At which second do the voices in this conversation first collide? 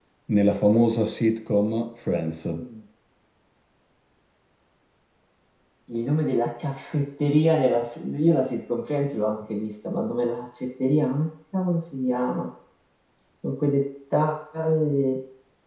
none

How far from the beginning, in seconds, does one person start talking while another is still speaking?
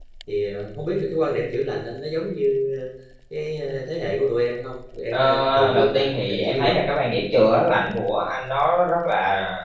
5.1 s

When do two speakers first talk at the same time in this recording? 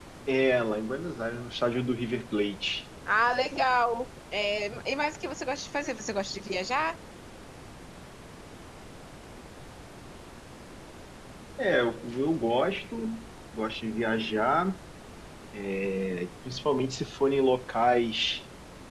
none

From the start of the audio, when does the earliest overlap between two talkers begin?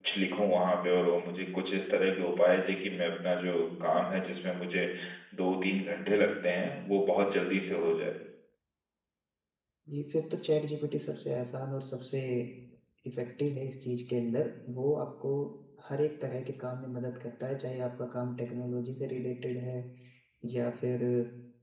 none

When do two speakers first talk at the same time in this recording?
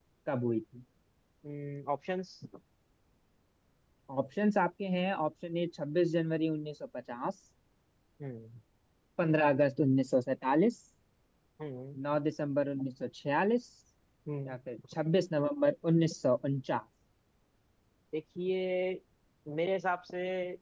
none

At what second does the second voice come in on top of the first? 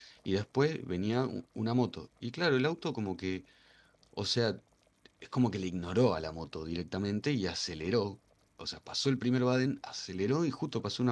none

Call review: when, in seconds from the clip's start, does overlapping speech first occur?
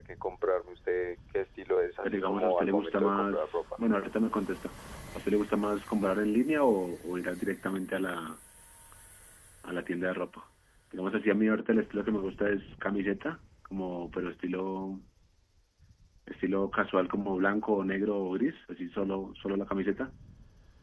2.0 s

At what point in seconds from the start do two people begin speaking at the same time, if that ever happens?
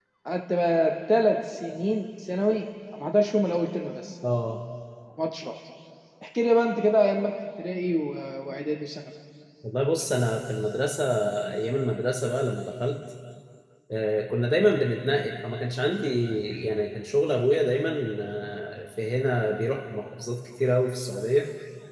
none

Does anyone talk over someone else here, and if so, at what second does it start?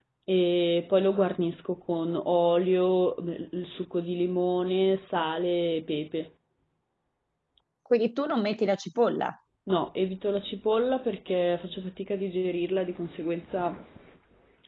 none

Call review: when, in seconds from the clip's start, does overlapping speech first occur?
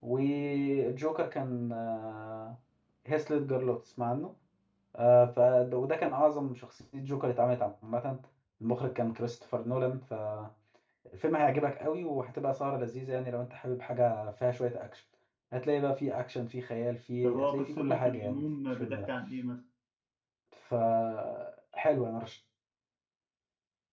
17.2 s

